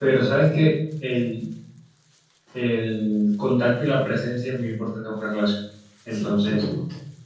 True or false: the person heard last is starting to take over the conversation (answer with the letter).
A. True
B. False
B